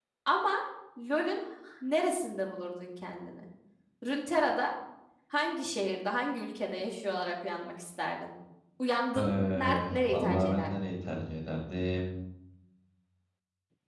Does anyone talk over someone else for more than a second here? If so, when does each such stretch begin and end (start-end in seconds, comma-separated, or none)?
9.2-10.7